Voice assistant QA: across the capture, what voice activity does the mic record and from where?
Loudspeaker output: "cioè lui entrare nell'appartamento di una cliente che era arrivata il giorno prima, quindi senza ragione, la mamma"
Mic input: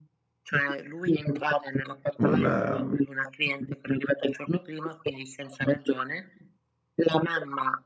both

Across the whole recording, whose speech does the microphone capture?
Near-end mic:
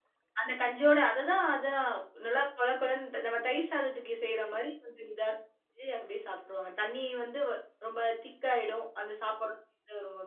user only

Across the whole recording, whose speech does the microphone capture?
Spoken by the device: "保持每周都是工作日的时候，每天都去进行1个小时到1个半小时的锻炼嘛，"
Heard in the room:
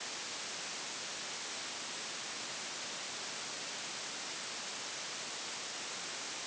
neither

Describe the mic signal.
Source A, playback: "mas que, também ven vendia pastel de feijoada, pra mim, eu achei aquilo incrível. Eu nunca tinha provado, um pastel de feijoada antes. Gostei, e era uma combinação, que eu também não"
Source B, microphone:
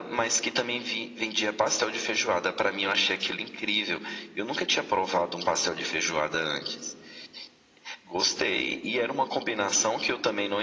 echo only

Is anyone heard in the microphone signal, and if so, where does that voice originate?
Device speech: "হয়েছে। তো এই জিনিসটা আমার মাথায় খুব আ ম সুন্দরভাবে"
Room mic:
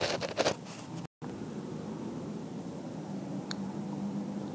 neither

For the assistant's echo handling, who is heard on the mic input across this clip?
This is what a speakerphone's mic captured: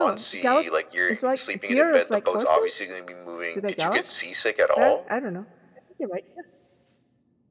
both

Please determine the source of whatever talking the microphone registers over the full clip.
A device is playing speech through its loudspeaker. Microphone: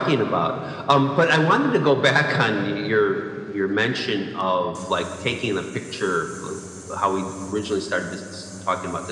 echo only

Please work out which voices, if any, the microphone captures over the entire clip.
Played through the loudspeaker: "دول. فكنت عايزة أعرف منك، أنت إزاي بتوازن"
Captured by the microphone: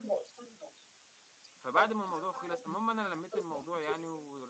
both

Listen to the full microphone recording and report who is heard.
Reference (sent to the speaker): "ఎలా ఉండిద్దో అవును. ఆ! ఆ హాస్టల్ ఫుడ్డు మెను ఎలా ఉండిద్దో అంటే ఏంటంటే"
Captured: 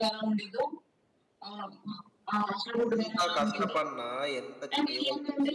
both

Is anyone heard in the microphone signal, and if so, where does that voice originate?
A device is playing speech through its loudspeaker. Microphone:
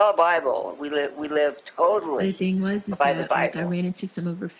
both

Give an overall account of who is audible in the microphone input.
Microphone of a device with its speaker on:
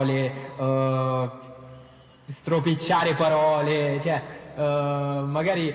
echo only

